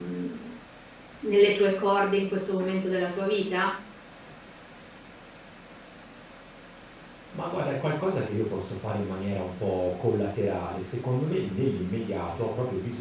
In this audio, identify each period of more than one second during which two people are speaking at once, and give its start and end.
none

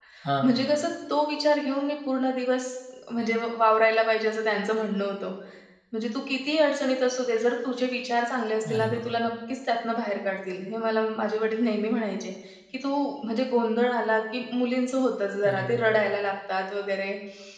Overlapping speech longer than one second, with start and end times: none

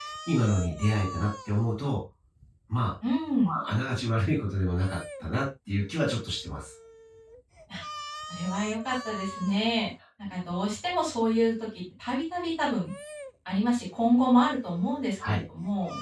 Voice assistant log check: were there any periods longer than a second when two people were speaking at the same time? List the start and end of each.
none

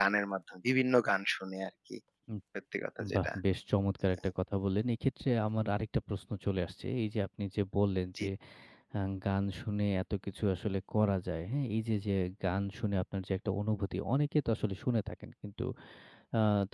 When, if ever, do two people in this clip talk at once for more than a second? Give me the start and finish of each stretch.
none

